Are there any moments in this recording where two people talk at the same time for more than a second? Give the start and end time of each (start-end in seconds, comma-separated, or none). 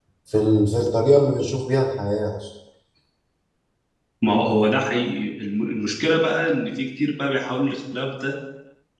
none